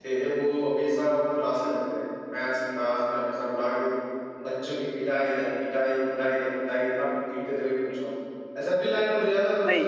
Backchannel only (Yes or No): Yes